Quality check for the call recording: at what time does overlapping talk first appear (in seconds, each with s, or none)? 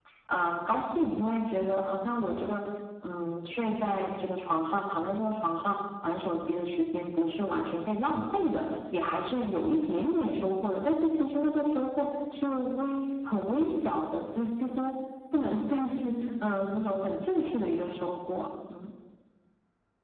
none